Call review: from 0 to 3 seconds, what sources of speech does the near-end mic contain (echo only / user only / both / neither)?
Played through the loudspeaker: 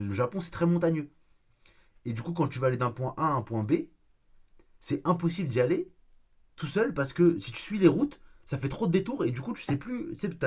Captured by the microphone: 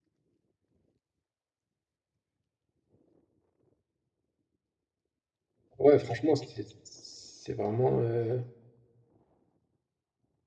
neither